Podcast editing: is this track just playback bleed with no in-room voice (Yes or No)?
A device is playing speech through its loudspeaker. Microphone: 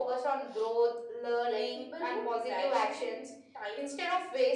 Yes